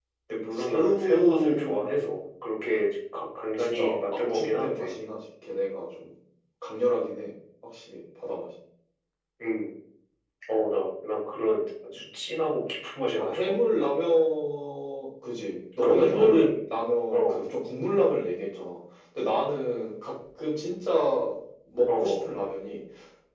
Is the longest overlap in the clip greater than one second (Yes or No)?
Yes